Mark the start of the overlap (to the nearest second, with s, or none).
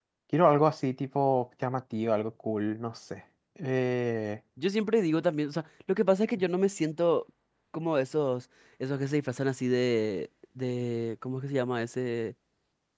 none